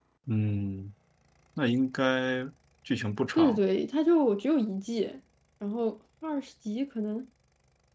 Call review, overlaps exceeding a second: none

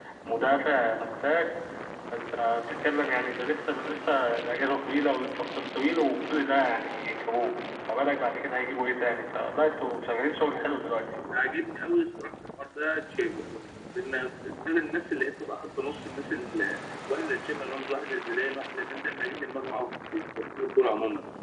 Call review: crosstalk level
none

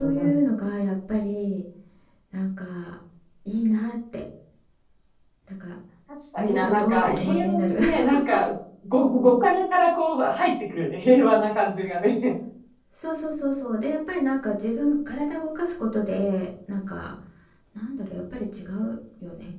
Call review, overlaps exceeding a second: present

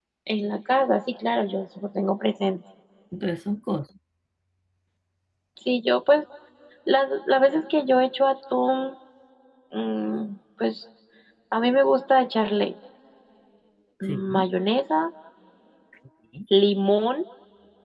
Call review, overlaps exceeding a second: none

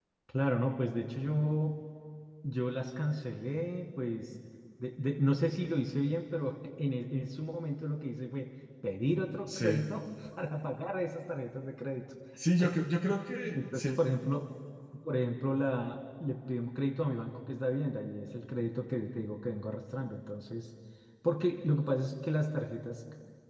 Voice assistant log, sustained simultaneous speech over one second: none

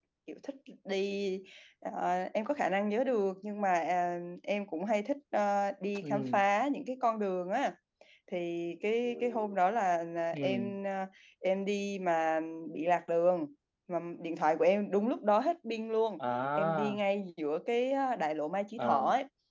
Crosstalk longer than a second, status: none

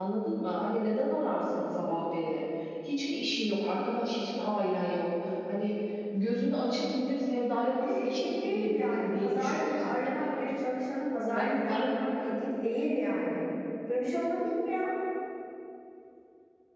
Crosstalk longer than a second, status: present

